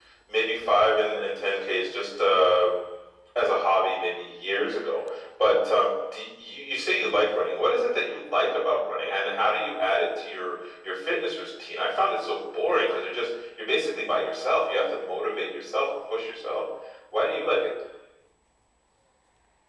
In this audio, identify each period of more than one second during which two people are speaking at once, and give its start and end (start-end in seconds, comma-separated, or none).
none